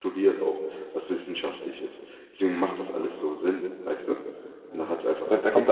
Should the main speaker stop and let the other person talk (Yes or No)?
Yes